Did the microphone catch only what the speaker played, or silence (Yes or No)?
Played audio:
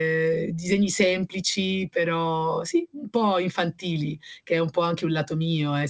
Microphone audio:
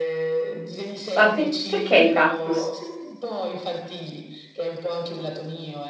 No